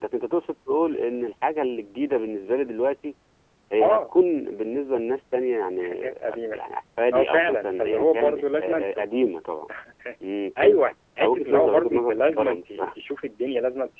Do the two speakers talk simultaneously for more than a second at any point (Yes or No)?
Yes